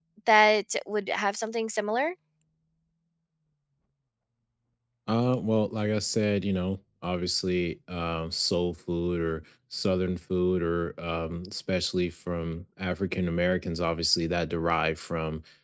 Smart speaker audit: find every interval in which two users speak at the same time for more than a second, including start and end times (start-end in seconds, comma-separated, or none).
none